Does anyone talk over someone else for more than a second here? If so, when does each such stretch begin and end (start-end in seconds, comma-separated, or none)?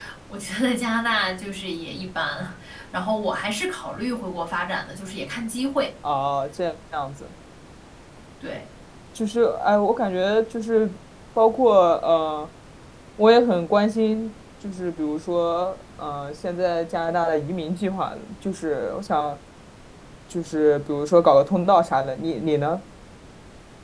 none